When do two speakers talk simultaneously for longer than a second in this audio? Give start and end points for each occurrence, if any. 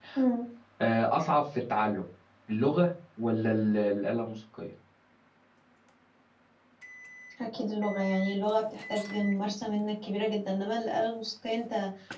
none

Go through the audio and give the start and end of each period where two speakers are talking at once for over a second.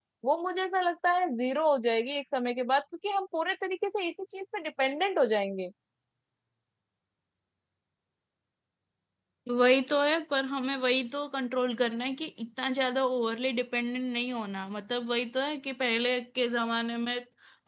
none

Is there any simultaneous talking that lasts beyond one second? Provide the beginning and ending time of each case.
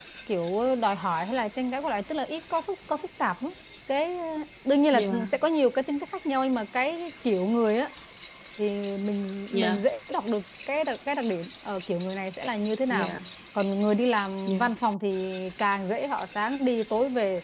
none

